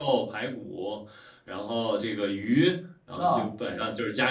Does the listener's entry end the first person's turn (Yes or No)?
No